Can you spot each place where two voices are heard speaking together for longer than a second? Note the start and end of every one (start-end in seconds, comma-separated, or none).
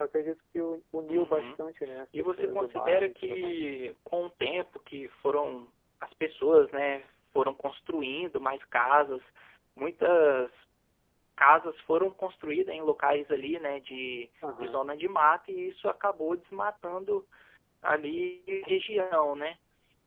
2.2-3.6